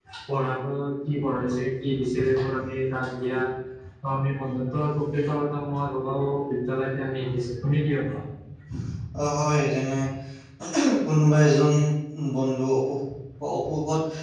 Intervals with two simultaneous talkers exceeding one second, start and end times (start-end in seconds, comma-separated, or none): none